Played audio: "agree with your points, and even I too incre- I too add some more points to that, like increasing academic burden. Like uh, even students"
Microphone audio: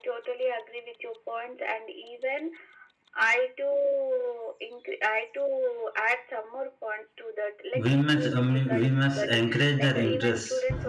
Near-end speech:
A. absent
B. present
B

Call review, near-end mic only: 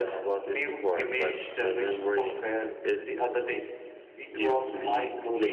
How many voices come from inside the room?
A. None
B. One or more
A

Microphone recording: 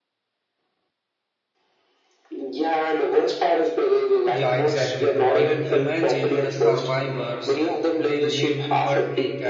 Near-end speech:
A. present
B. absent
A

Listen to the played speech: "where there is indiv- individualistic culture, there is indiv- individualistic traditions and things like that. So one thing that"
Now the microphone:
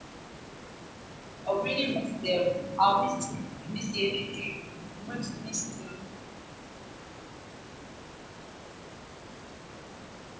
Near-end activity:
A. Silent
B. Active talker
B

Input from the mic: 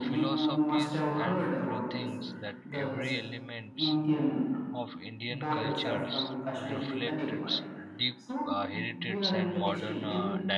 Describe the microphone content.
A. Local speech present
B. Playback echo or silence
A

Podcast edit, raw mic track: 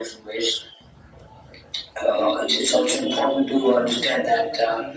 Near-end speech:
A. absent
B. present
B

